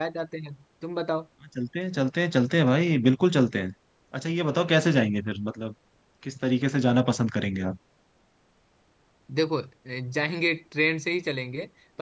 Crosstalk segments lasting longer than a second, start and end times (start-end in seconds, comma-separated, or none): none